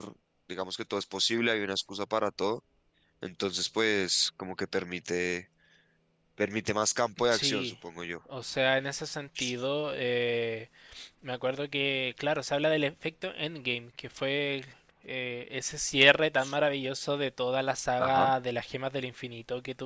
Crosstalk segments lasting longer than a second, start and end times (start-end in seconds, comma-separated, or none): none